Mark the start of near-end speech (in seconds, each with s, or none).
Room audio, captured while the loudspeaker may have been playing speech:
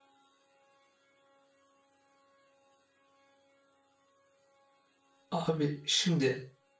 5.3 s